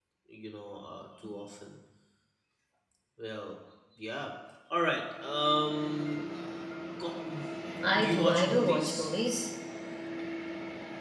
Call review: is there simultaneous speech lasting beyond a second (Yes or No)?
Yes